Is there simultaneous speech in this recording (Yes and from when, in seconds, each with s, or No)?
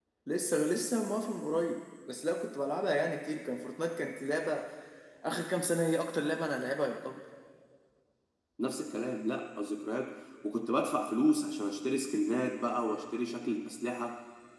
No